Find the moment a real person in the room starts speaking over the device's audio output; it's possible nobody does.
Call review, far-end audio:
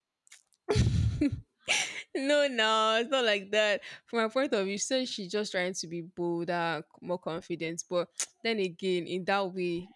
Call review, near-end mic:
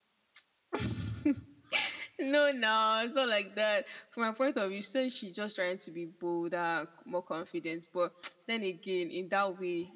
none

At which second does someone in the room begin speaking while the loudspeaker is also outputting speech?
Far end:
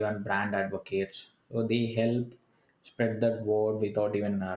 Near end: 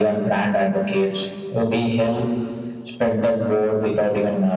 none

